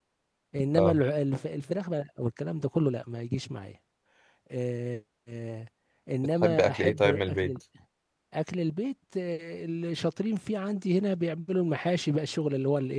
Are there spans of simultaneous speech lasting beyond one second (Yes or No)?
Yes